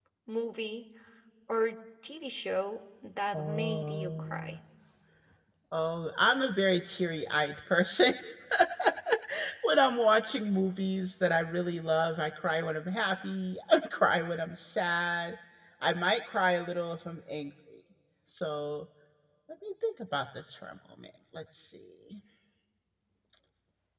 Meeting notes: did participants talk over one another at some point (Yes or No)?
Yes